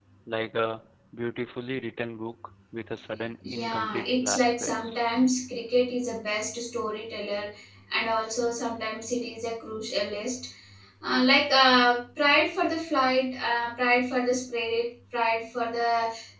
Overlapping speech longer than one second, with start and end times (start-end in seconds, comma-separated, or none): 3.4-5.0